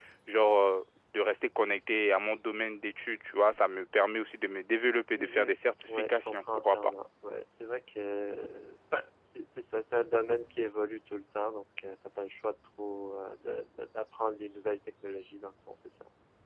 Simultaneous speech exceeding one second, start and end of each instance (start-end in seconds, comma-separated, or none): 5.1-6.9